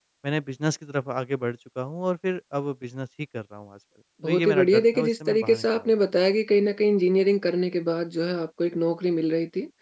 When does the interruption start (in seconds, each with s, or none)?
4.2 s